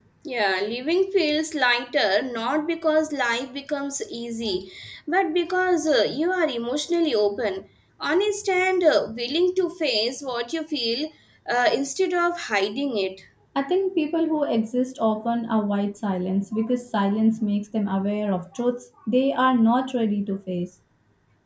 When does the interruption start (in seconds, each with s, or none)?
none